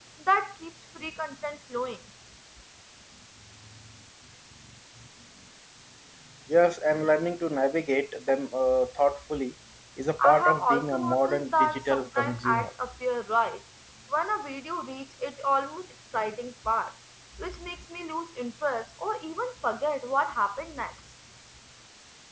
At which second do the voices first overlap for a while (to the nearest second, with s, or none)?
10 s